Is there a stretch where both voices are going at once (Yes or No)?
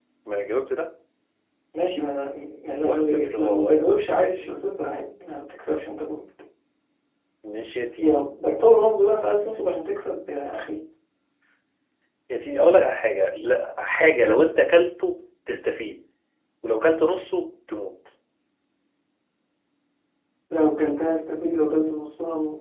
Yes